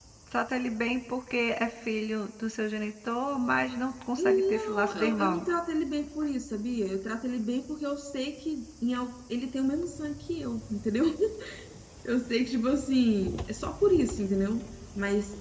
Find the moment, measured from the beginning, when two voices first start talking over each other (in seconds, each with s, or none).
4.2 s